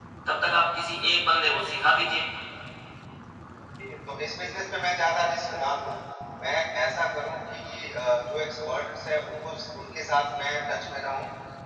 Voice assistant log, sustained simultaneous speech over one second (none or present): none